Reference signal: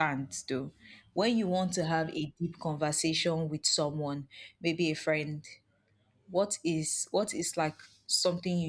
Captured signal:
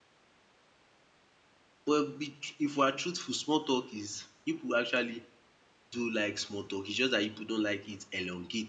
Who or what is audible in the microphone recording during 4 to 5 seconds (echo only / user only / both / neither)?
user only